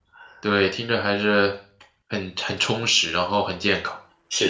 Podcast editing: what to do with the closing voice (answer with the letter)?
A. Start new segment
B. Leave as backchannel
A